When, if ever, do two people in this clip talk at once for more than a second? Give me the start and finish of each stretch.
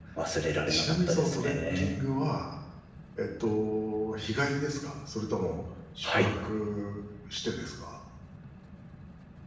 0.7-2.0

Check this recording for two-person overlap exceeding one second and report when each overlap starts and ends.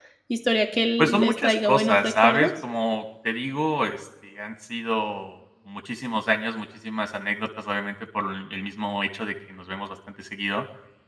1.0-2.5

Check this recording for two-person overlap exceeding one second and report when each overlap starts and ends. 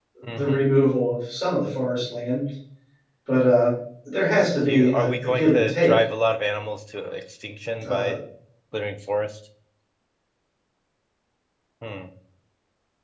4.7-5.9

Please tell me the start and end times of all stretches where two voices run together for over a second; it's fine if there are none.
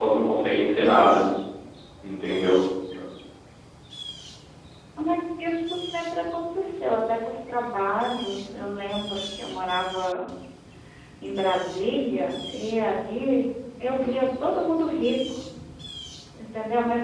none

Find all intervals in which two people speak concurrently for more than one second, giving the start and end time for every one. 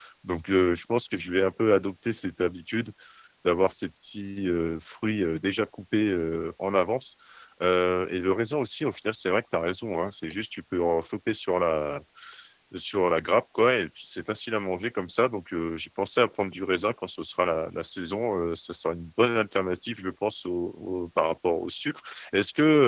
none

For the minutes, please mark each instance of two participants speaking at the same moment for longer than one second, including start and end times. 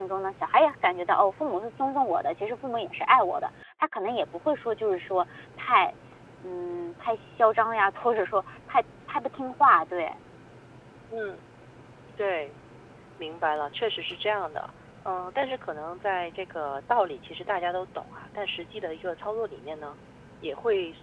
none

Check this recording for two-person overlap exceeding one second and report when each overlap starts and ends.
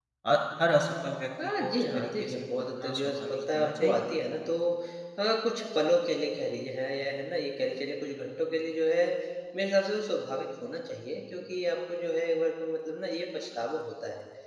1.4-4.0

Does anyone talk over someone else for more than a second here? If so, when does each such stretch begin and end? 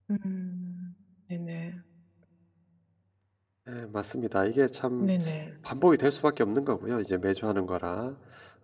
none

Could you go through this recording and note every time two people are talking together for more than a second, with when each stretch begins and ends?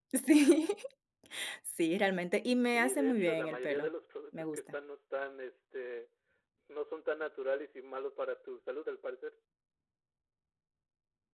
2.6-3.9

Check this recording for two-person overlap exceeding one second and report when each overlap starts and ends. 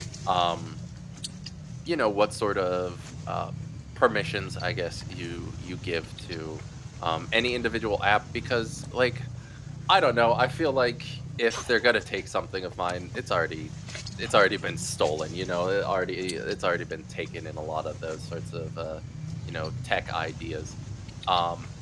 none

